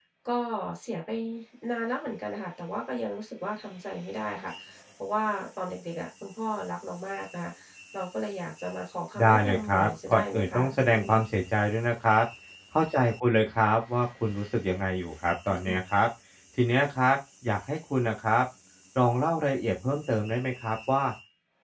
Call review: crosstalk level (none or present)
present